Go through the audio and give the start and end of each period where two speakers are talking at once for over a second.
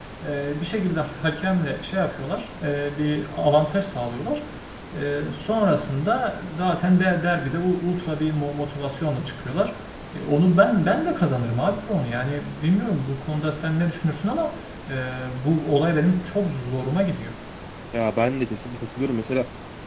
none

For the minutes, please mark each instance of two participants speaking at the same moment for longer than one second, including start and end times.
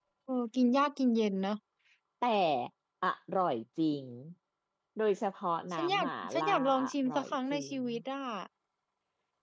5.7-7.8

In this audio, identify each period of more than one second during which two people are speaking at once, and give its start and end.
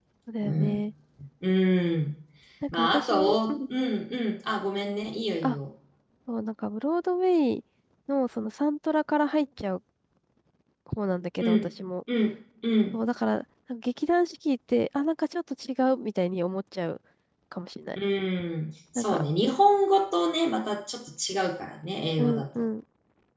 2.7-4.0

